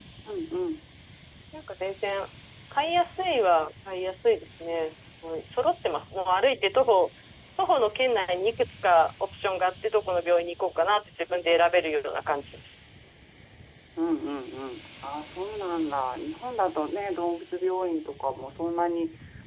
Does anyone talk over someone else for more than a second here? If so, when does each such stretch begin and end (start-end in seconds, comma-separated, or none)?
none